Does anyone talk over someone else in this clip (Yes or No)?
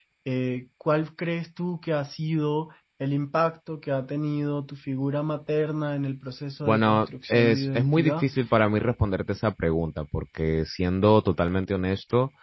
Yes